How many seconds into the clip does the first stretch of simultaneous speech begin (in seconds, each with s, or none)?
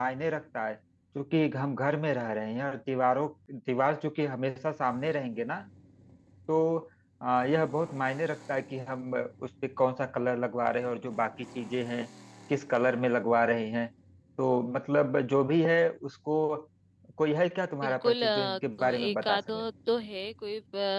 17.8 s